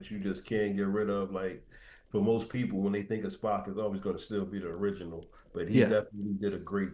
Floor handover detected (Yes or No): No